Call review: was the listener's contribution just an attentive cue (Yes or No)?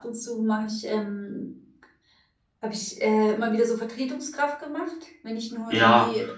No